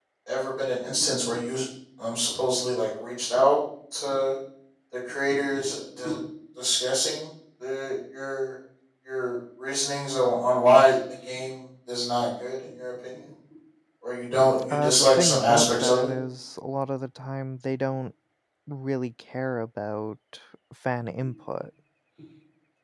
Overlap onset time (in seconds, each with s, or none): 14.7 s